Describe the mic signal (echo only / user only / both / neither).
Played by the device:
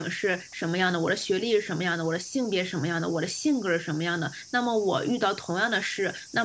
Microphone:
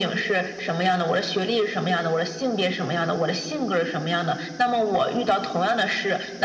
echo only